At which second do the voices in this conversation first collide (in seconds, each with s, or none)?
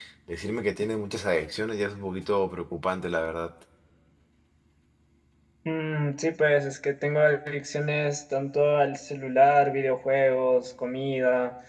none